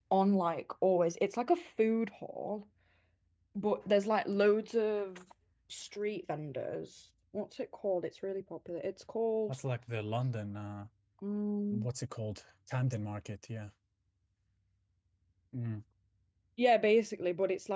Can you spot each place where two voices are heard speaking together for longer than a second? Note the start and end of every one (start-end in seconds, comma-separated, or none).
none